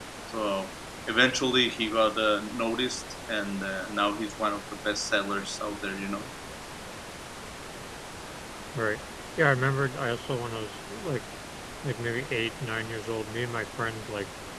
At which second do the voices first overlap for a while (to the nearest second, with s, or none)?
none